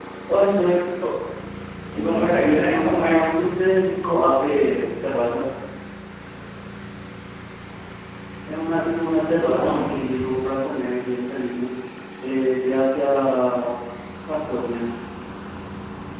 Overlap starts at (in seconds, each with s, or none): 2.0 s